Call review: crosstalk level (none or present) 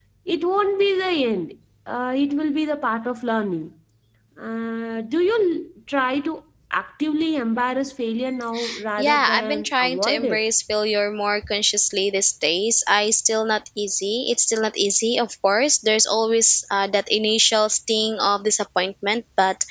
present